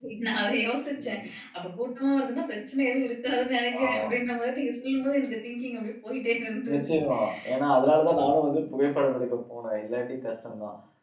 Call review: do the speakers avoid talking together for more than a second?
Yes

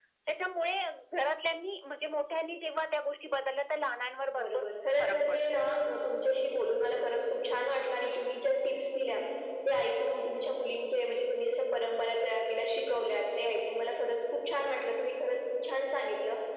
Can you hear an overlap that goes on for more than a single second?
No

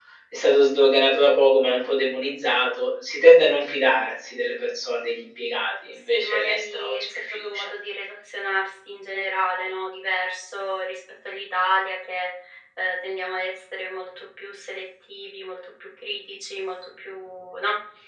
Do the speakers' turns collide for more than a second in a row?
Yes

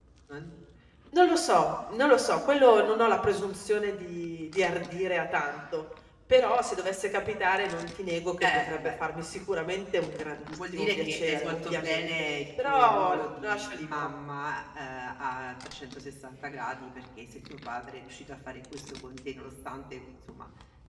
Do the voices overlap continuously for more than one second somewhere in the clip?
Yes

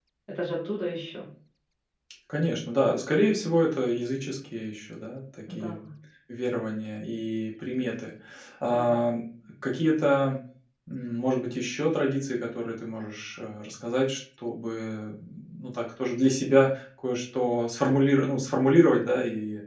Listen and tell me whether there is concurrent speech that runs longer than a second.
No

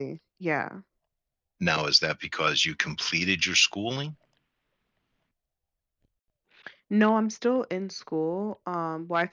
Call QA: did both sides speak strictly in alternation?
Yes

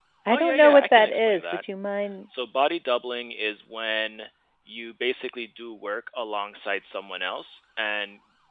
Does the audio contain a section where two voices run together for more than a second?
Yes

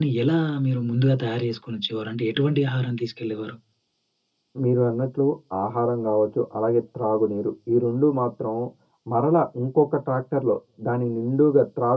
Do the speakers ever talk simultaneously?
No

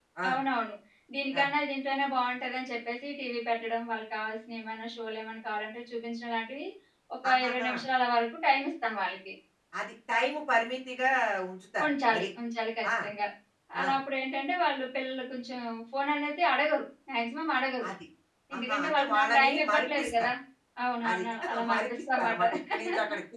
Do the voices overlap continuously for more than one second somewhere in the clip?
Yes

